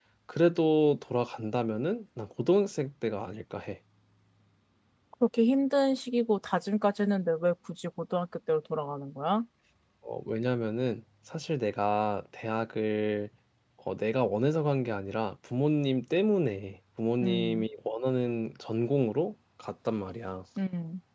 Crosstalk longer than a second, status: none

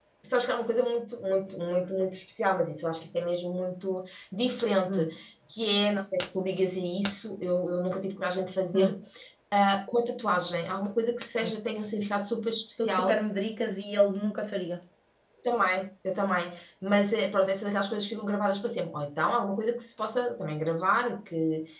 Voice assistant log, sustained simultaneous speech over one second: none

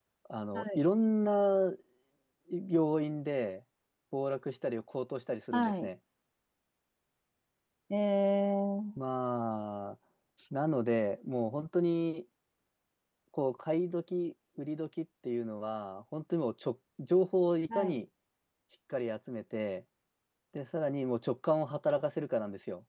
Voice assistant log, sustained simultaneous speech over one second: none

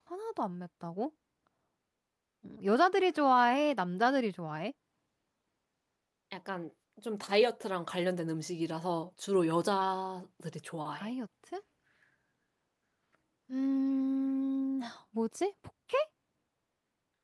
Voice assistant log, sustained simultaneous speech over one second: none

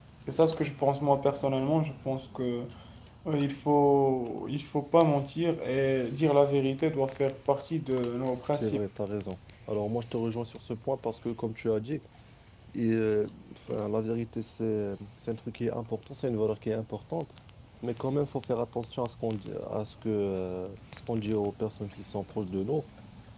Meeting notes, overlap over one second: none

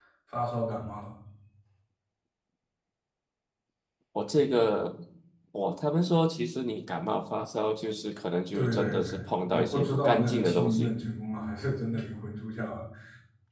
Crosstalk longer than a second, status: present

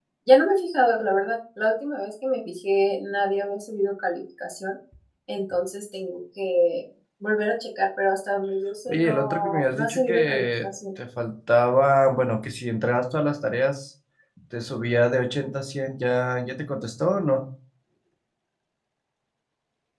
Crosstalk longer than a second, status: present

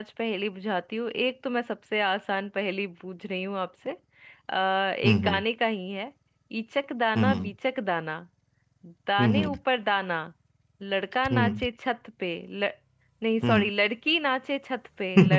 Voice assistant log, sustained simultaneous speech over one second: none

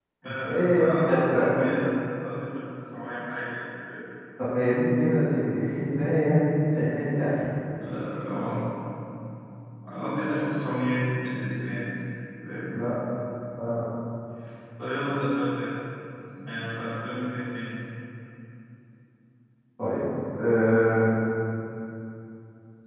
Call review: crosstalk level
present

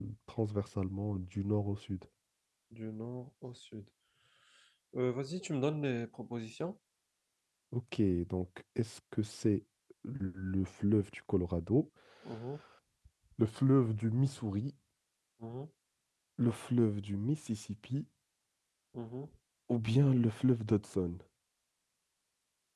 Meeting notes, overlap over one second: none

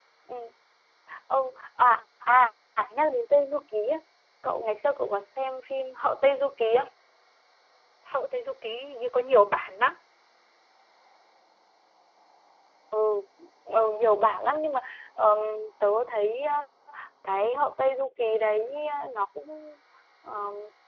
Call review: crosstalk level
none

